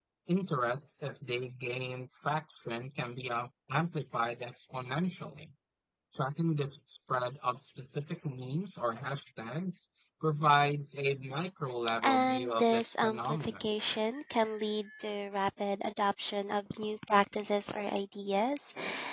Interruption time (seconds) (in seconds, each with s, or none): 12.0 s